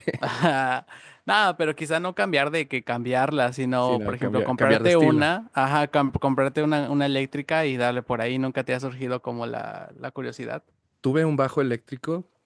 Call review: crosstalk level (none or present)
present